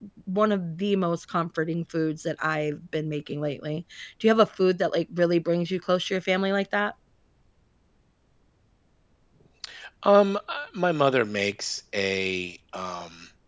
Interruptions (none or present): none